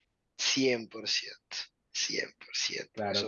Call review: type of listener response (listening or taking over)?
taking over